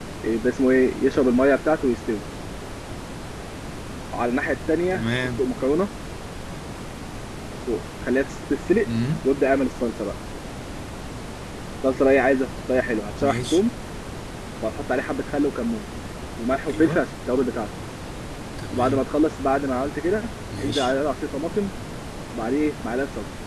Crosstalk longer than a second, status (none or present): none